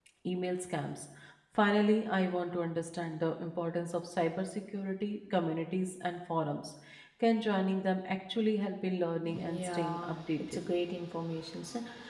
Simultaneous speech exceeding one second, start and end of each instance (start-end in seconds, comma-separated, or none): 9.2-10.6